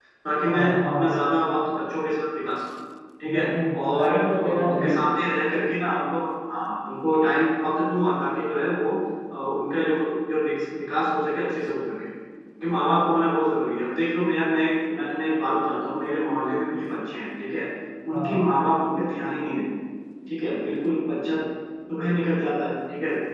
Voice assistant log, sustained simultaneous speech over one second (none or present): present